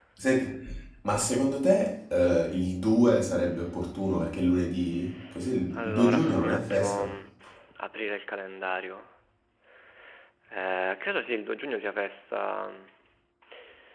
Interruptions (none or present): present